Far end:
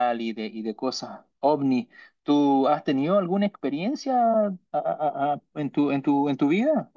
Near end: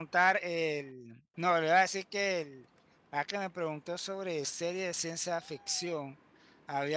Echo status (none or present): none